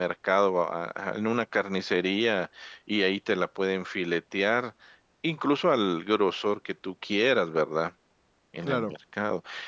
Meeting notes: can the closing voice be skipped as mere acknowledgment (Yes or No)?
Yes